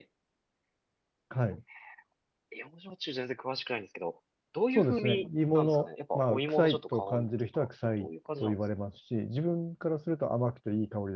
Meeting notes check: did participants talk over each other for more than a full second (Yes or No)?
Yes